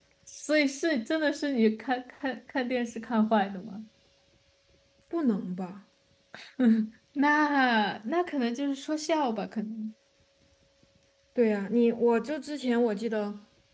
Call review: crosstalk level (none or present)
none